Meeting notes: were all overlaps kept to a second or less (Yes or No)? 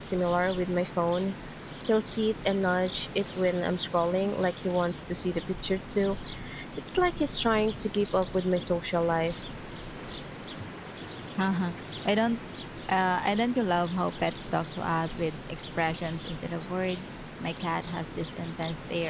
Yes